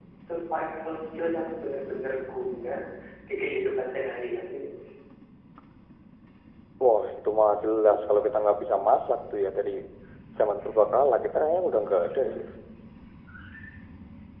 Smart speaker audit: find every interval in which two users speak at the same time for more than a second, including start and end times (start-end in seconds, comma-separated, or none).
none